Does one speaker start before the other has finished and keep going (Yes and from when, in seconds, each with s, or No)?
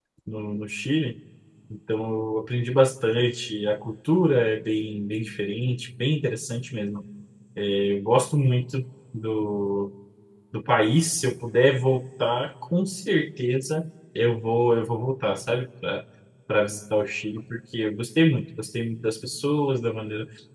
No